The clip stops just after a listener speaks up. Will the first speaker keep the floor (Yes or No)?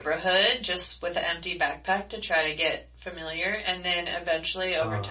Yes